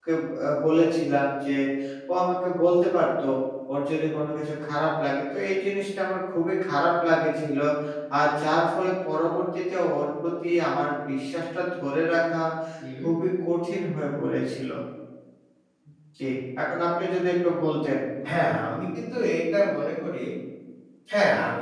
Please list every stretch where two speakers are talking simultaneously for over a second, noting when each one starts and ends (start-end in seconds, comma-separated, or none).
none